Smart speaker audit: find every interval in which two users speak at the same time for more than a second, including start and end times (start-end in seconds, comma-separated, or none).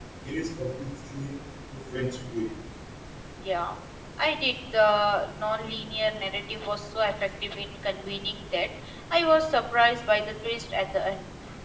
none